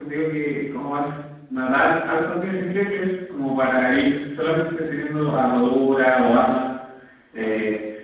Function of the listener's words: listening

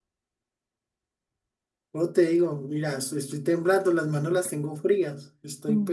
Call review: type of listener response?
taking over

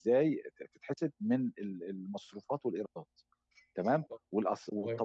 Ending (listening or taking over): listening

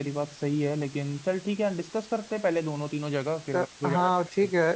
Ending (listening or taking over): taking over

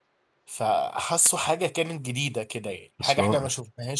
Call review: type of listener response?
listening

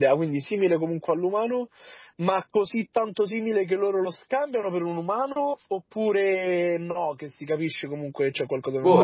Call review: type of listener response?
taking over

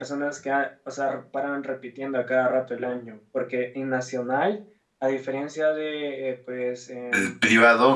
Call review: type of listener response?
taking over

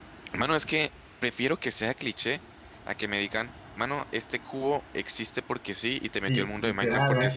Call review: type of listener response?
taking over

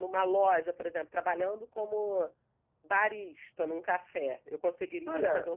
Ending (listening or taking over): taking over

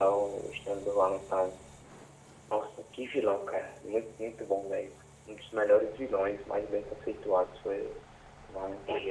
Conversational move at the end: taking over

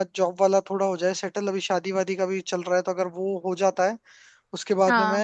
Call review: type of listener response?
listening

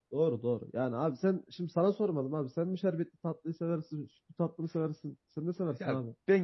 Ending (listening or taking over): taking over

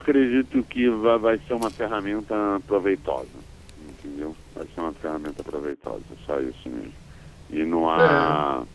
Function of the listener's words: listening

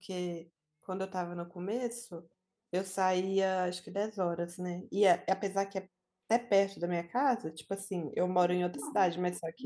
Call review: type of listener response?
listening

